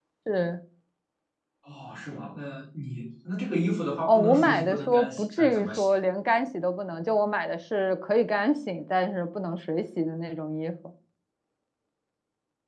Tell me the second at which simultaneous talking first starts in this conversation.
4.0 s

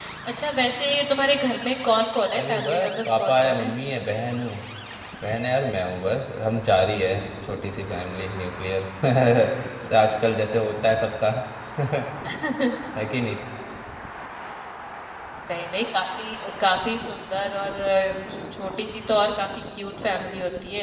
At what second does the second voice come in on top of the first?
2.3 s

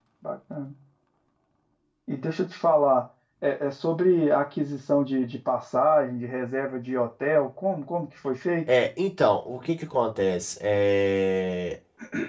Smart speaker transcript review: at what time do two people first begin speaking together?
none

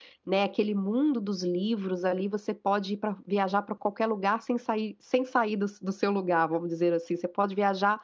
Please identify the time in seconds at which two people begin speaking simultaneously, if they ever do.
none

